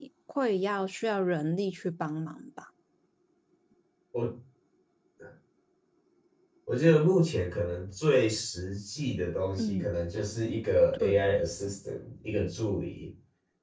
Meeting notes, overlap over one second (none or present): none